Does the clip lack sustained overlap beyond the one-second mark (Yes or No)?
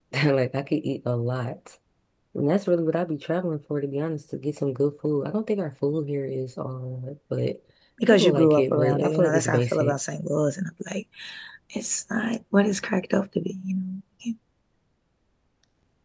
No